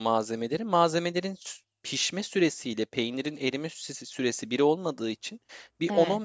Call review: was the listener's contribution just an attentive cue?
Yes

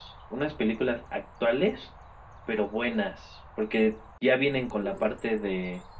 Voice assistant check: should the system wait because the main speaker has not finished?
Yes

